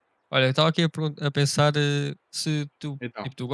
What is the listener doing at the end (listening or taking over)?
listening